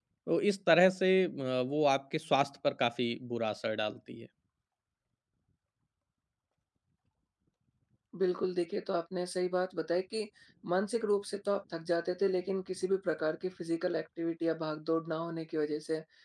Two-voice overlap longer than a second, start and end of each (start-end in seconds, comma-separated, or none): none